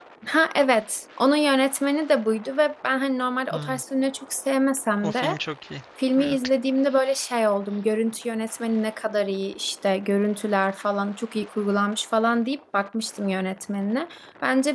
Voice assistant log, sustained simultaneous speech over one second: none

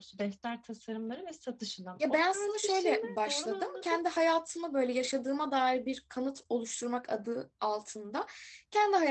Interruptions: present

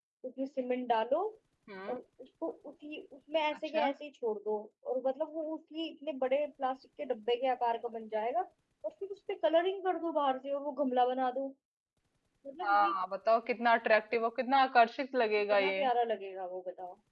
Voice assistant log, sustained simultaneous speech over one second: none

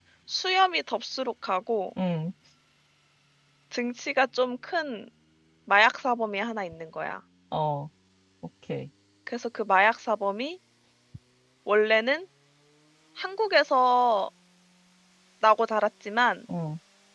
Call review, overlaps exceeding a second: none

